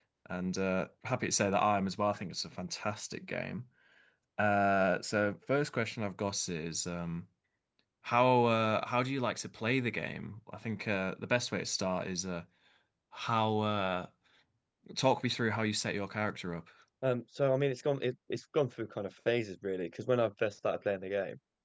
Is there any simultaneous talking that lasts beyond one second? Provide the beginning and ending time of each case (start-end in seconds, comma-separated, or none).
none